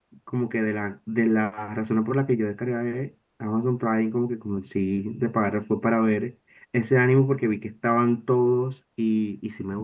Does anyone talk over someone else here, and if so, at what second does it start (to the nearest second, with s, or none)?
none